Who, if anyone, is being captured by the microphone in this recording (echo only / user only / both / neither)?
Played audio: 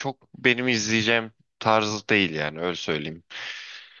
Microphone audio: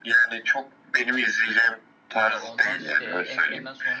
both